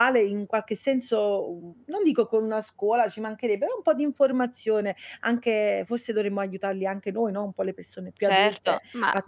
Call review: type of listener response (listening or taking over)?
taking over